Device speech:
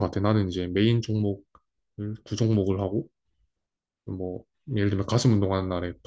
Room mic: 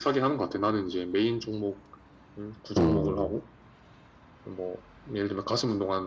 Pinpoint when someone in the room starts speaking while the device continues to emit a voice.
2.8 s

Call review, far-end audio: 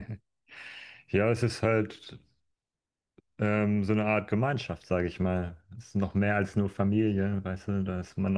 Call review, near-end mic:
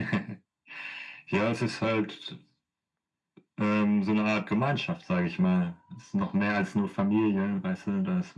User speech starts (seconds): none

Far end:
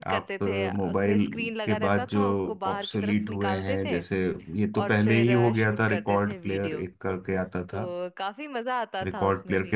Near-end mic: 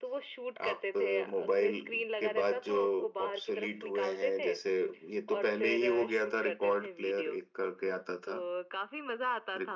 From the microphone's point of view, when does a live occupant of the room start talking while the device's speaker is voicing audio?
none

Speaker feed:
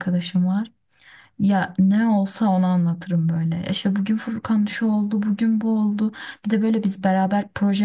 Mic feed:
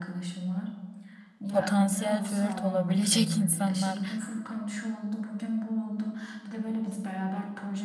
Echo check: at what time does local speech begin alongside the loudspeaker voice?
1.5 s

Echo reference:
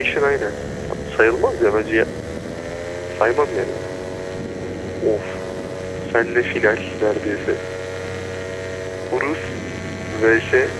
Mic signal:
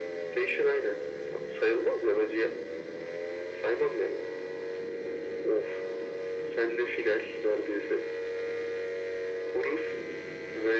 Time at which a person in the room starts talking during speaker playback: none

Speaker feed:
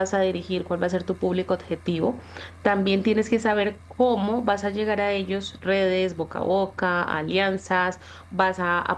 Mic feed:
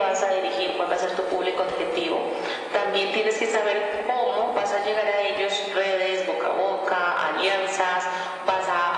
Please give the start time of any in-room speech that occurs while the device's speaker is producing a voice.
none

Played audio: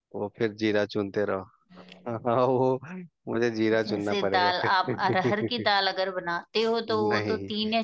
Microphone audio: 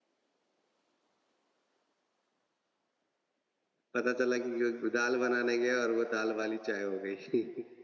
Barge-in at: 3.9 s

